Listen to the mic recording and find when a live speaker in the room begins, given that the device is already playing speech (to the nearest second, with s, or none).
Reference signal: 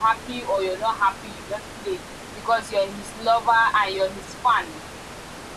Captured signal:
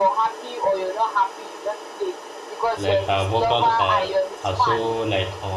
3 s